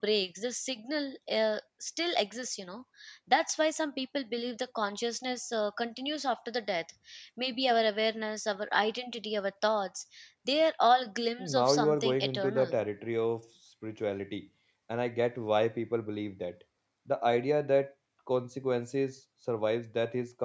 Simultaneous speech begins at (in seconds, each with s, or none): 11.4 s